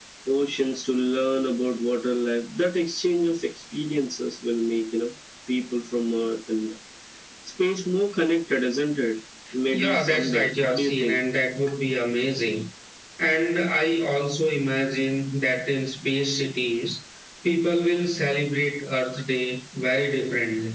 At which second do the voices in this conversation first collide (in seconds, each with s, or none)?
9.7 s